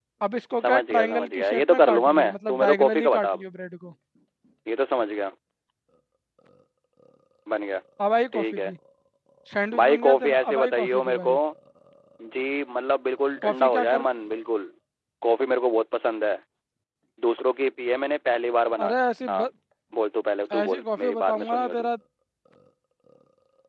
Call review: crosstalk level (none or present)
present